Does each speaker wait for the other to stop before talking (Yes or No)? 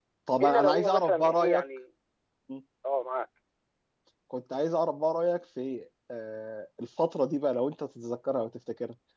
No